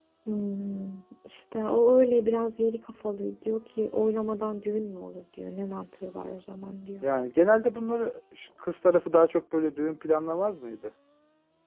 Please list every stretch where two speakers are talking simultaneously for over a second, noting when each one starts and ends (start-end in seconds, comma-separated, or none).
none